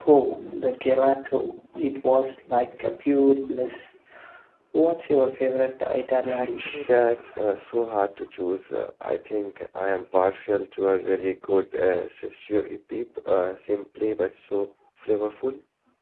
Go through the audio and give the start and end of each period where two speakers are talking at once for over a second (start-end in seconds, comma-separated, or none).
none